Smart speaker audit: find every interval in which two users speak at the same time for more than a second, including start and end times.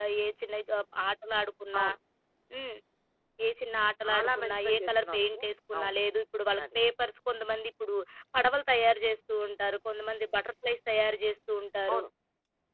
4.0-5.4

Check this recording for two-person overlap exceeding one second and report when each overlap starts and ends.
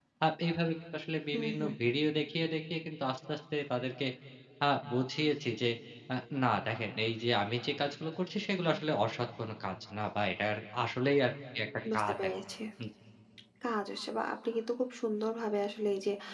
none

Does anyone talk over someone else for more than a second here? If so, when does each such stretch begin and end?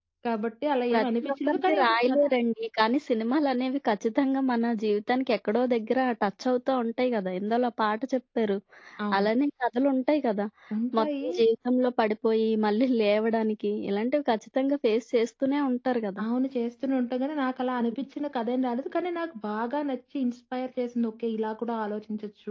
0.9-2.2

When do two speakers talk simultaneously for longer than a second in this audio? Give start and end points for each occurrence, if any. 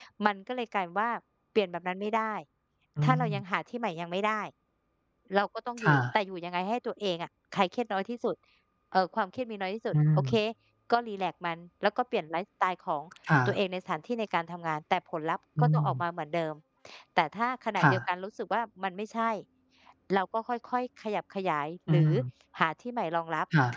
none

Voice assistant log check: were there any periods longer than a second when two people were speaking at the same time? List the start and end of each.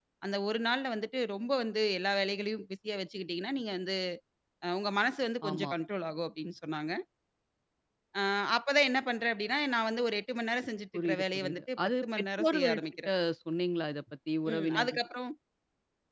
10.9-13.1

